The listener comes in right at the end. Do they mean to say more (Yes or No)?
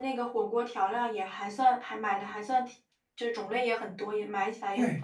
Yes